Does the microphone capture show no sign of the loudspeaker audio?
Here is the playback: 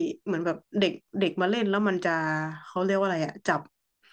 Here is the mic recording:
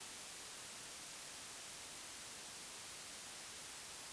Yes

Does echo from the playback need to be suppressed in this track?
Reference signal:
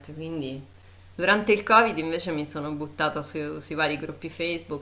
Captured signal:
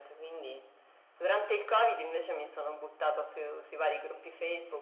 Yes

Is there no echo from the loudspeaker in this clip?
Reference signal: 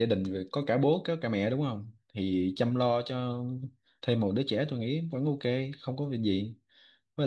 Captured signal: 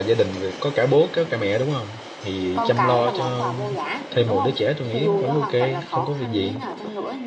No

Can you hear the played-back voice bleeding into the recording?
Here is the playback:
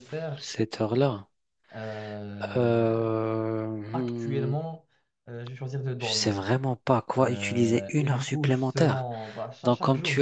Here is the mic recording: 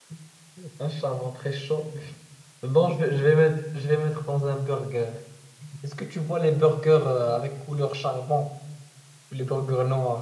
No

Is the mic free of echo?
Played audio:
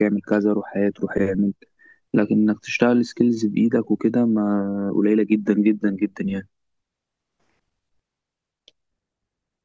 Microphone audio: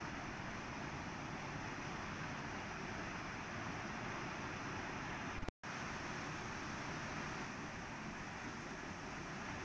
Yes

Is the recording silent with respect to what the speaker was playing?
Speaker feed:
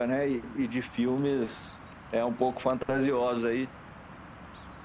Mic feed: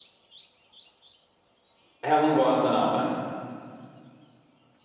Yes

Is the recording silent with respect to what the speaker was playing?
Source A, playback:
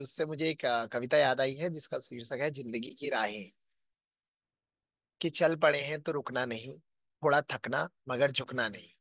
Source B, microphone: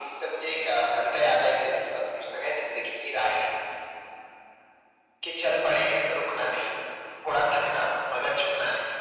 No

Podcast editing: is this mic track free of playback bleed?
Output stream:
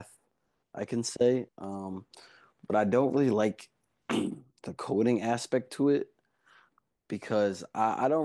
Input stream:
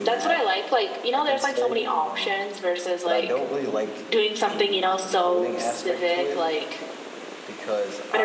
No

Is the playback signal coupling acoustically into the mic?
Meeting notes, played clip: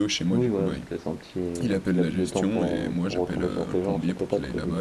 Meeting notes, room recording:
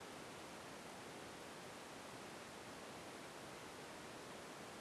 No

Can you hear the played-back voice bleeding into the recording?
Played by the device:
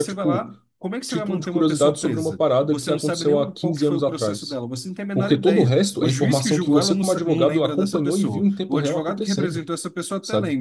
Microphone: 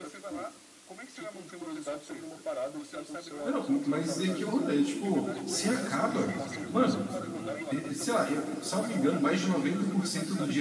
Yes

